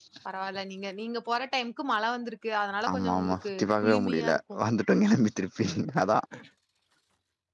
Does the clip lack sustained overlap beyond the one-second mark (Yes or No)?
No